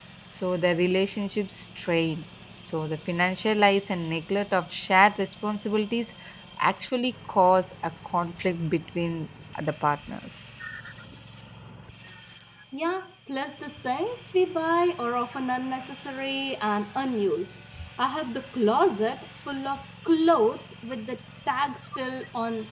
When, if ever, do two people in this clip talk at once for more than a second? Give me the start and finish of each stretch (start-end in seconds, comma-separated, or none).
none